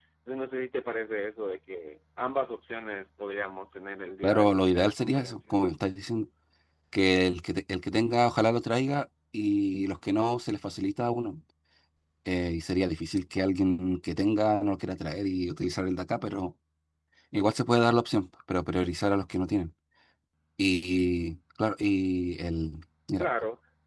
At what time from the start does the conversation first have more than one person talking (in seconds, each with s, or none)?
4.2 s